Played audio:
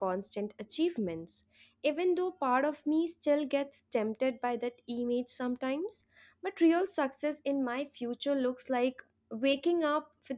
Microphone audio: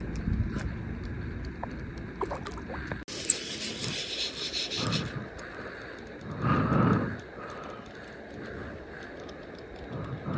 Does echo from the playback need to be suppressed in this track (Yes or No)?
No